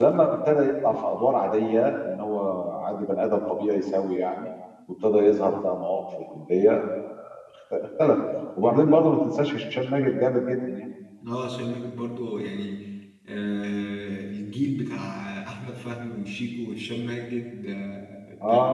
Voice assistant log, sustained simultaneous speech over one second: none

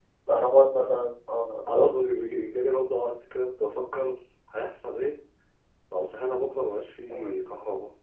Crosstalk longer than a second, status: none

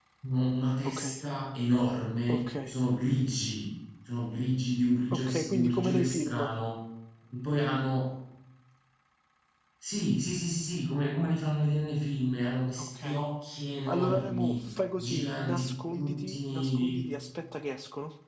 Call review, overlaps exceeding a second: present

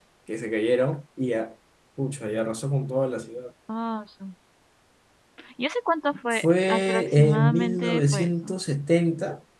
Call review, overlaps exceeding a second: present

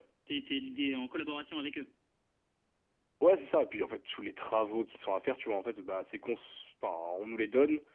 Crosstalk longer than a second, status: none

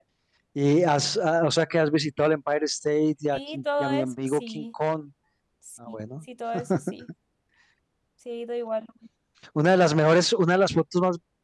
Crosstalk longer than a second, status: present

